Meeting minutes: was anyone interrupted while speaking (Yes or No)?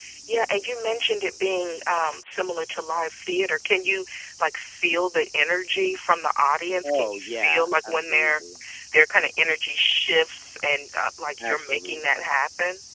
Yes